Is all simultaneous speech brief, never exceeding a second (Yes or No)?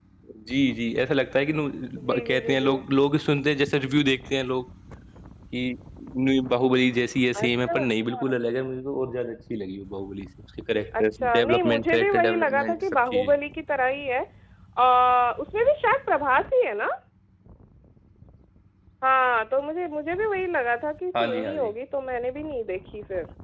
No